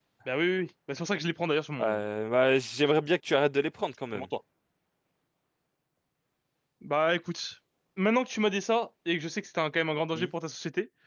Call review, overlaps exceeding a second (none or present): none